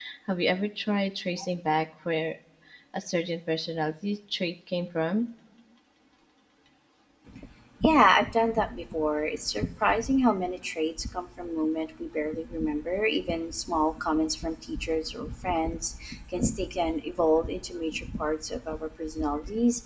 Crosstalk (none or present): none